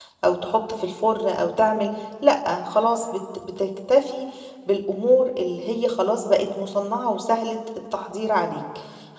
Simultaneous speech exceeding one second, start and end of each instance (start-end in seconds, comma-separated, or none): none